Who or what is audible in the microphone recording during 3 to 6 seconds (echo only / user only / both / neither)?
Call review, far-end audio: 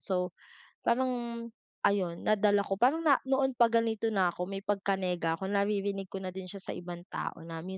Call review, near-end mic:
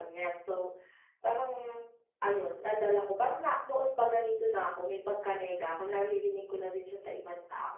echo only